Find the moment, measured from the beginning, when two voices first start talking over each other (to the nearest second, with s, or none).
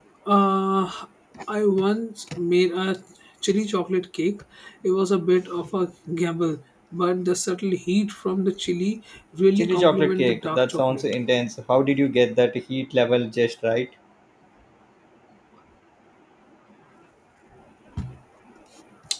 10 s